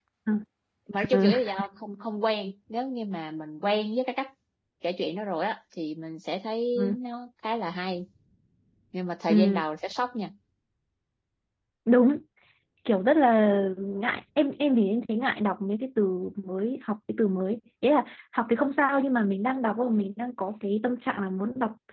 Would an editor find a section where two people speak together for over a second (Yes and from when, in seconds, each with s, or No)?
No